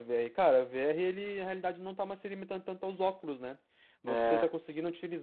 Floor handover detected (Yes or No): No